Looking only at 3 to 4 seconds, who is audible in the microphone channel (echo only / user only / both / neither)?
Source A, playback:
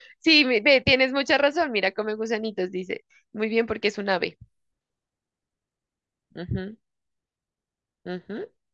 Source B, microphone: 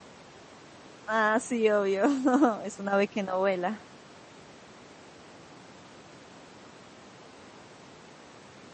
user only